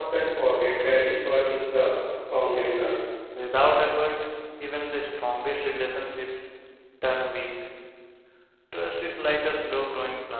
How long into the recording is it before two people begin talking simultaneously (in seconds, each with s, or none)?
none